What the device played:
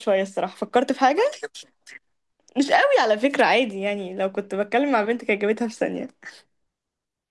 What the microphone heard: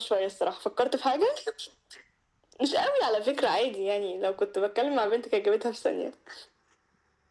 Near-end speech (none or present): none